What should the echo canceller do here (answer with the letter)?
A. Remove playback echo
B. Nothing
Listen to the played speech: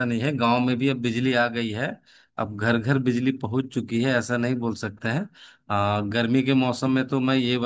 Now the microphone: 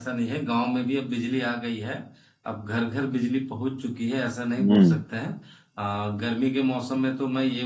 A